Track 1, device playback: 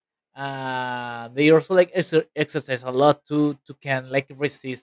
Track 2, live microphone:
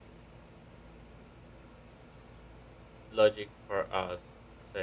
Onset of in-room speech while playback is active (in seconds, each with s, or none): 3.1 s